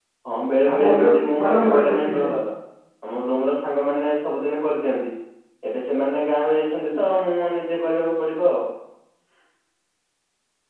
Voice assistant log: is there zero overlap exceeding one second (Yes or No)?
No